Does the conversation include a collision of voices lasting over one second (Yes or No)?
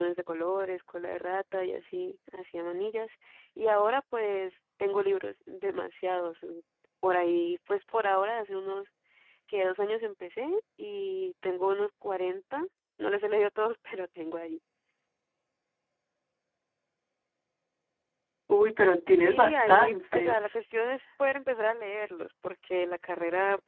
Yes